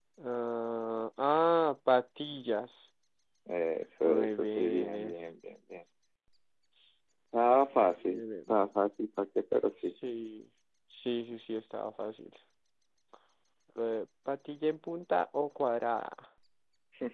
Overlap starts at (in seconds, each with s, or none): 4.0 s